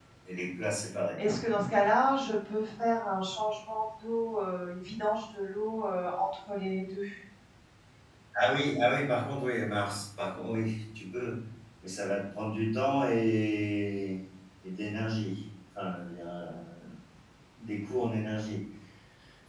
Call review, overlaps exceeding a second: none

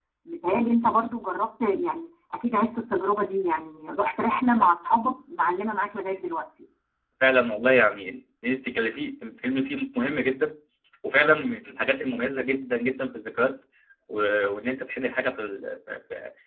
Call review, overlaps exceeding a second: none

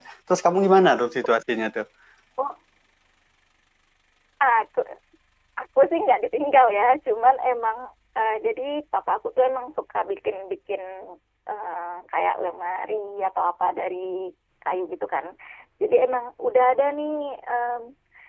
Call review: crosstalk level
none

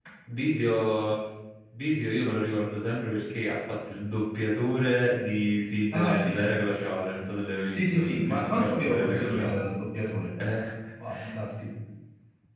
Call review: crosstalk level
present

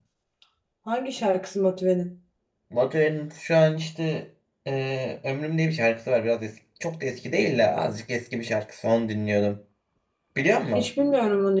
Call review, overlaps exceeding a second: none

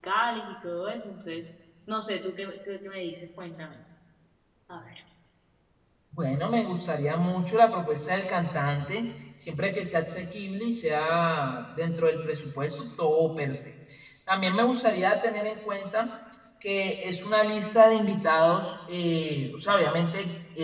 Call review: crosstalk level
none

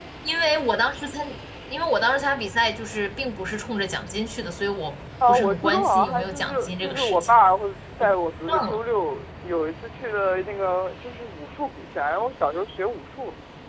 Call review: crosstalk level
present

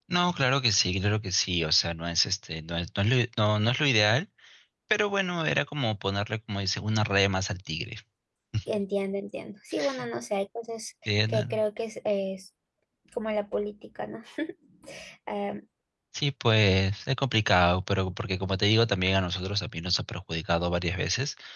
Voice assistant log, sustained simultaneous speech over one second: none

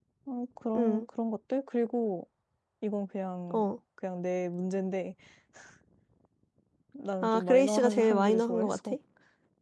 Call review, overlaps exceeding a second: present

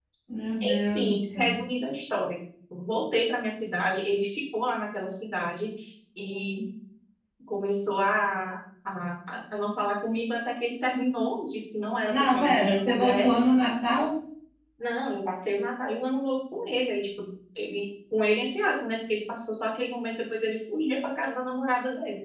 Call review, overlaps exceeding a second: present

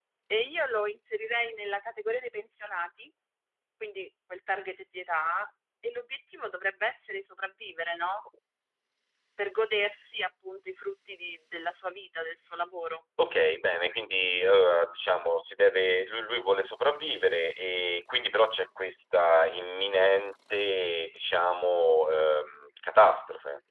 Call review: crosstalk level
none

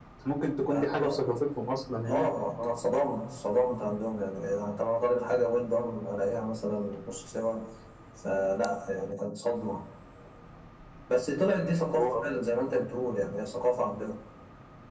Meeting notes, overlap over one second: none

